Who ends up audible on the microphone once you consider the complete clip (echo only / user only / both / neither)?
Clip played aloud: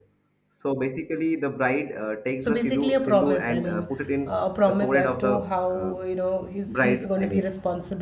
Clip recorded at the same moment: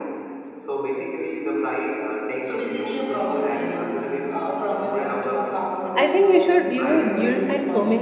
both